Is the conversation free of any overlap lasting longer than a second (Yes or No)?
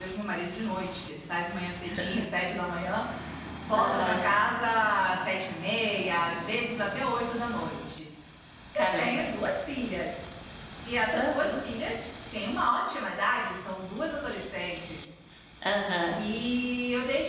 Yes